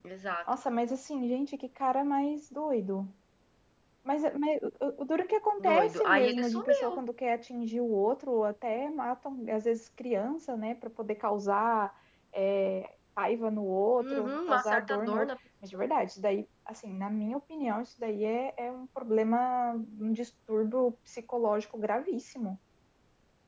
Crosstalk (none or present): present